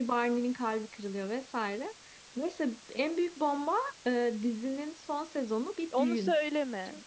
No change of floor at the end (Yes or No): No